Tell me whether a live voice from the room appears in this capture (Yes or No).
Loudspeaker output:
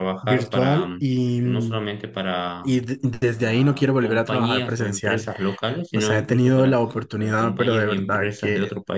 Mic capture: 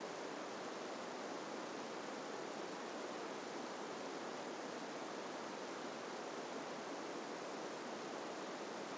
No